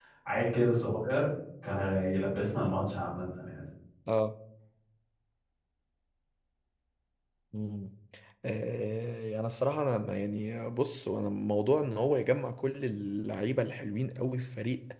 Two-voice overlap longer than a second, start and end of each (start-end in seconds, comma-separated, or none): none